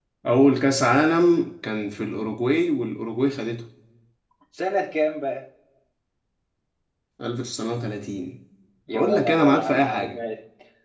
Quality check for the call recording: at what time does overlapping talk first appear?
8.9 s

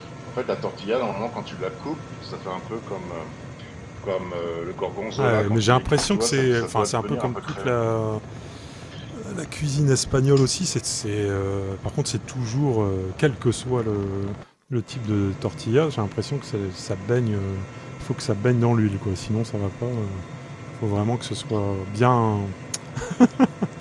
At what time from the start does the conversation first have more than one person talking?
5.2 s

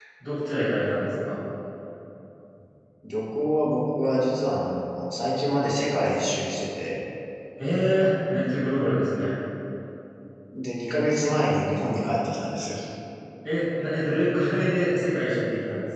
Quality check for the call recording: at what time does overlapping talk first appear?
none

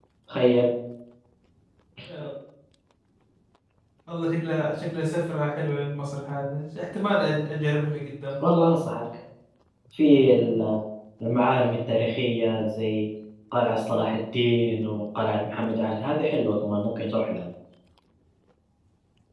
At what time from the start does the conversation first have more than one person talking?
none

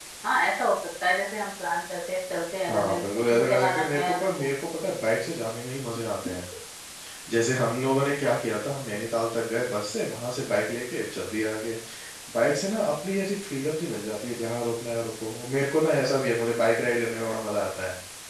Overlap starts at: 2.7 s

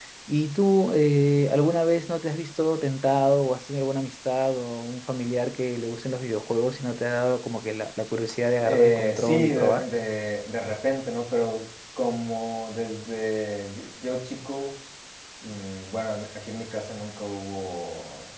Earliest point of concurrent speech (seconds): 8.6 s

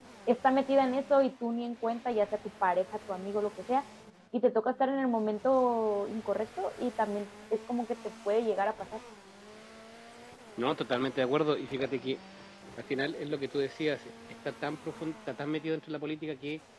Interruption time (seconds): none

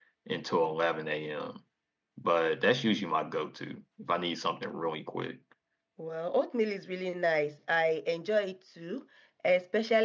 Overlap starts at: none

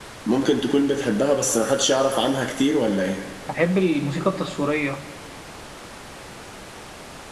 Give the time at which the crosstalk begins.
none

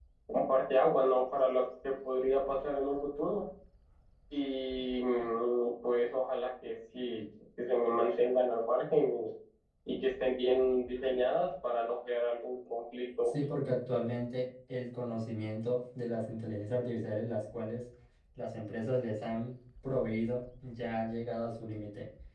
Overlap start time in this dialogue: none

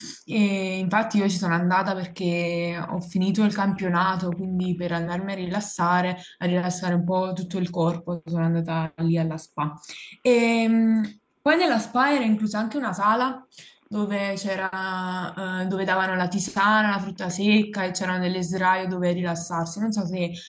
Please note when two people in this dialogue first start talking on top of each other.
none

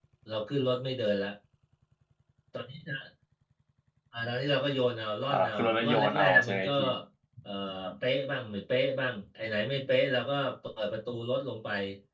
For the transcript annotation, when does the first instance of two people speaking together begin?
5.3 s

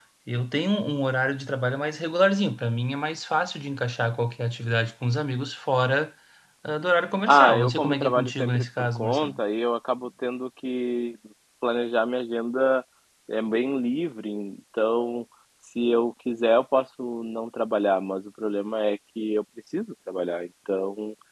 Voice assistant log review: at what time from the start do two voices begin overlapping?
7.3 s

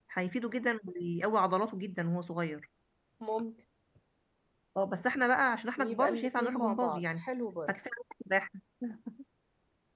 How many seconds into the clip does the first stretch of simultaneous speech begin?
5.8 s

